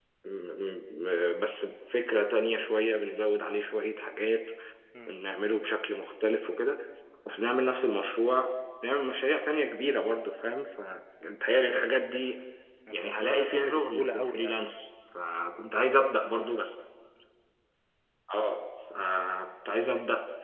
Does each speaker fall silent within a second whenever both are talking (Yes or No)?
No